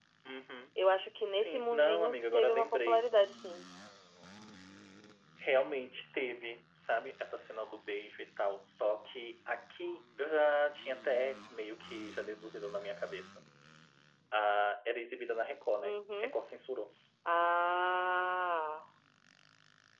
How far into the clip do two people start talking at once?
1.3 s

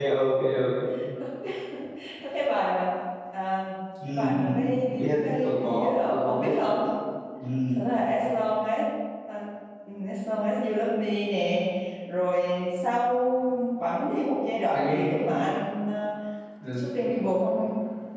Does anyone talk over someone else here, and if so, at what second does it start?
4.1 s

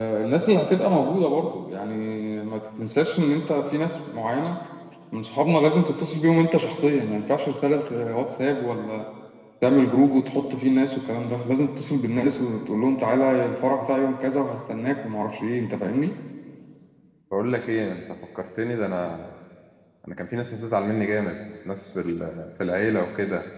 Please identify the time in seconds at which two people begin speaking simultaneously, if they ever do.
none

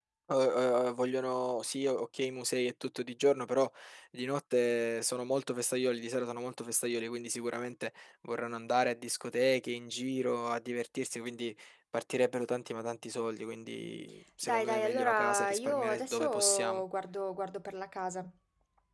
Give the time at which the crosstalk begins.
14.4 s

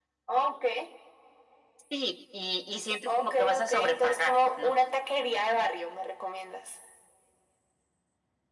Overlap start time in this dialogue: 3.1 s

